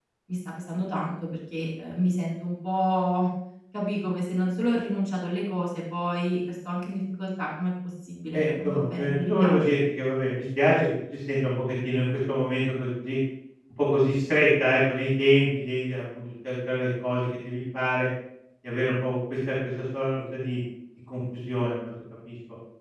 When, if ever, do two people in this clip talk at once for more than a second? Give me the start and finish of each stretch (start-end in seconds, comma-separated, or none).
8.3-9.8